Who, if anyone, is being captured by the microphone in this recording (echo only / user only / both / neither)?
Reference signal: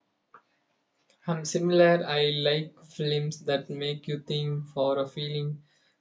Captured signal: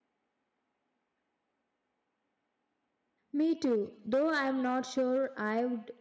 user only